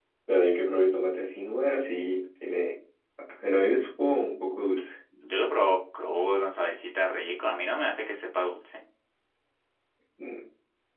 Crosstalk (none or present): none